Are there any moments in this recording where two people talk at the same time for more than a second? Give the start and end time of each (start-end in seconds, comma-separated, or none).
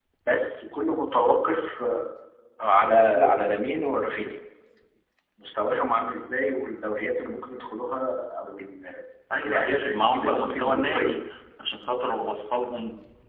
9.5-11.2